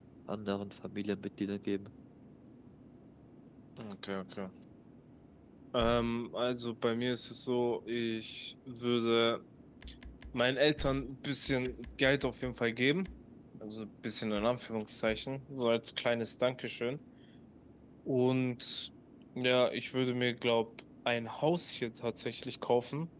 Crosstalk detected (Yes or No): No